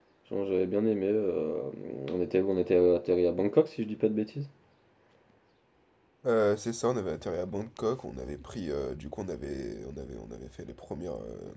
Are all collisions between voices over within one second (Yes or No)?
Yes